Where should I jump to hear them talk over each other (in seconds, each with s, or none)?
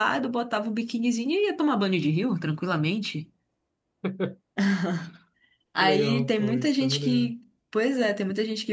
5.8 s